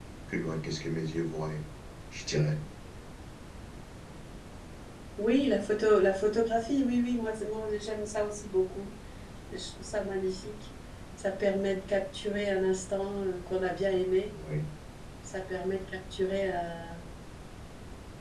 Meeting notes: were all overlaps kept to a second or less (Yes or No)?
Yes